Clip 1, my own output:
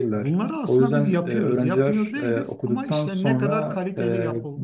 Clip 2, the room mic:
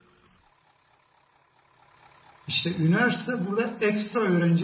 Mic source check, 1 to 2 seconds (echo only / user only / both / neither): neither